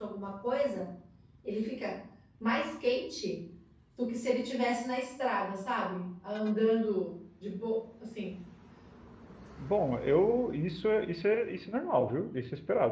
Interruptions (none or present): none